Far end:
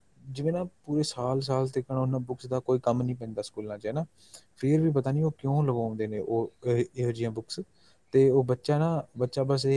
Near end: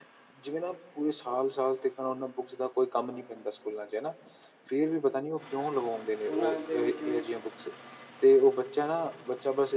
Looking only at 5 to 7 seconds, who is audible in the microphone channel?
both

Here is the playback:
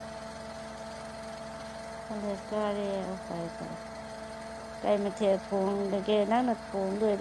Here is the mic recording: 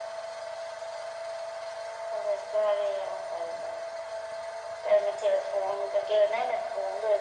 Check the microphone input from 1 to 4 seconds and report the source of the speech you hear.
echo only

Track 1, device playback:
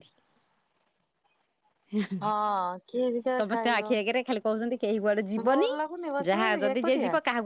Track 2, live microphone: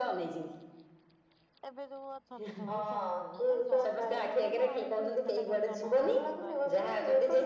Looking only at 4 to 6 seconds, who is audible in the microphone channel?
both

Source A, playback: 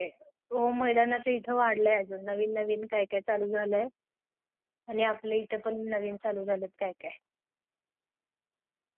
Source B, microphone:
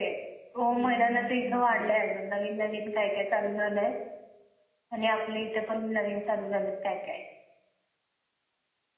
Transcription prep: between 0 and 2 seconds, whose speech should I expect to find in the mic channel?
both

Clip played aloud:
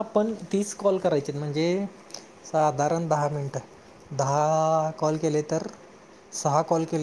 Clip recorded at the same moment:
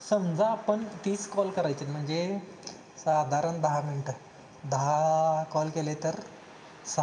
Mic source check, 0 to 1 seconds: echo only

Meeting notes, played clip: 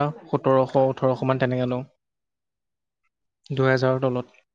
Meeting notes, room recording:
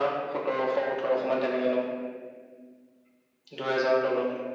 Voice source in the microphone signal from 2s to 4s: echo only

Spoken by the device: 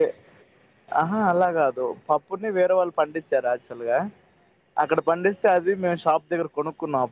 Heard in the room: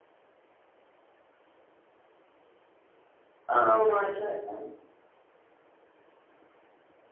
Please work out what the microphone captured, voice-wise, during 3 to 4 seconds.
user only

